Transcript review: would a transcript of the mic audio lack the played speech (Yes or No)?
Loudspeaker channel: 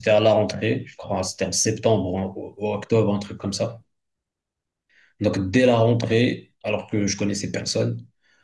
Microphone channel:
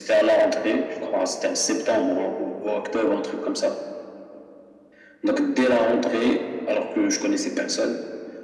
No